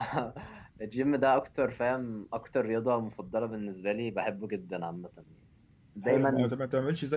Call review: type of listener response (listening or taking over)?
taking over